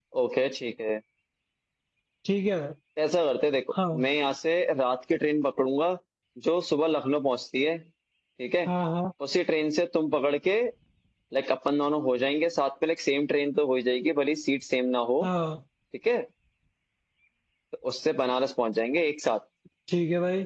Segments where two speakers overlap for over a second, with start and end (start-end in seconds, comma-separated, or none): none